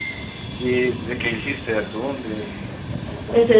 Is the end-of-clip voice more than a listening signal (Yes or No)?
Yes